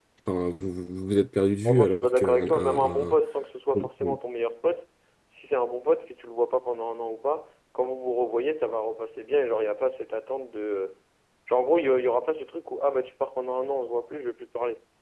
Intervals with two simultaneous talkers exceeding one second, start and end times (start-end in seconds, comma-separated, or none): 1.6-3.1